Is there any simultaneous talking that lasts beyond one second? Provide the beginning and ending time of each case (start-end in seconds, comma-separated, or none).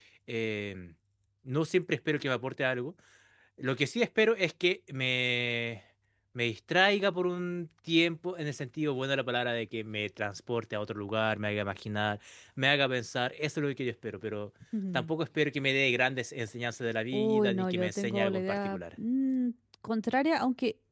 17.1-18.9